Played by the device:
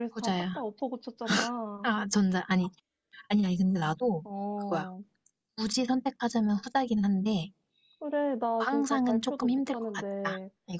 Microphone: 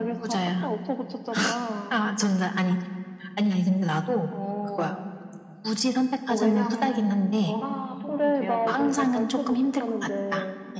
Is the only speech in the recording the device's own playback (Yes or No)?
No